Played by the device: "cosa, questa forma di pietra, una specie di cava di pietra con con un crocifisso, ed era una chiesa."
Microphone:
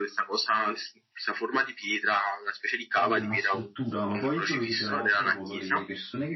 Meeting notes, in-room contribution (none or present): present